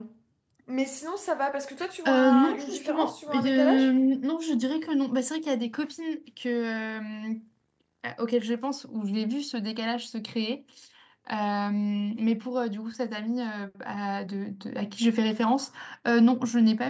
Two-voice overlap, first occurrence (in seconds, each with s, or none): 2.0 s